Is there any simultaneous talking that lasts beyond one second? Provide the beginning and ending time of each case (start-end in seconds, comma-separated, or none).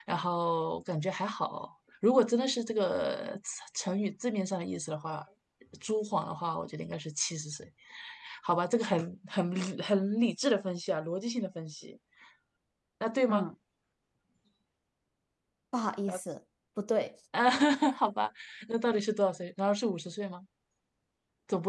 none